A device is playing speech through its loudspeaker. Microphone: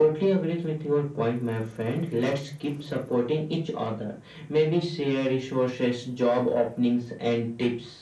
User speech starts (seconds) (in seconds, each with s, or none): none